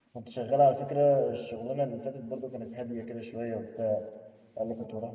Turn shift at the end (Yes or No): No